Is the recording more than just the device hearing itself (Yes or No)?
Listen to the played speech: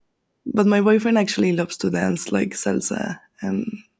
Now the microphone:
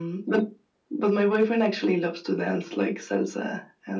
No